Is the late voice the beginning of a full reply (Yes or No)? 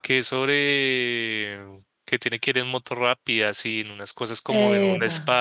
No